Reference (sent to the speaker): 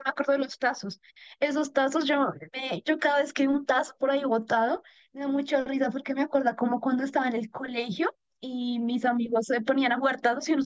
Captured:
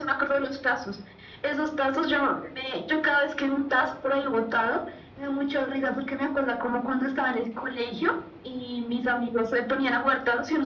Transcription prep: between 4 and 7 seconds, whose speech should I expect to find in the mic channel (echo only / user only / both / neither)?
echo only